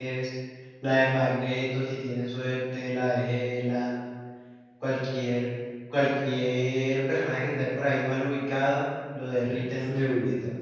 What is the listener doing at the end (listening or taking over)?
taking over